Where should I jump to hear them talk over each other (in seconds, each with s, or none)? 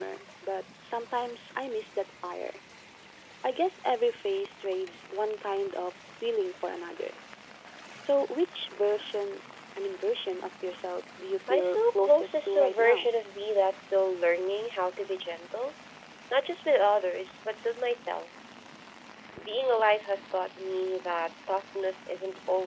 11.5 s